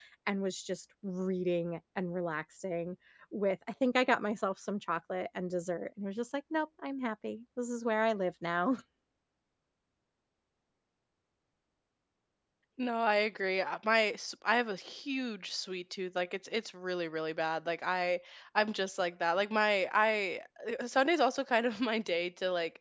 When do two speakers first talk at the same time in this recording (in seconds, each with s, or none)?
none